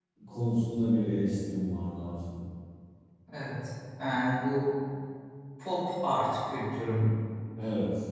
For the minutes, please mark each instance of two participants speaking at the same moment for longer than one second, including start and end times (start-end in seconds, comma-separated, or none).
none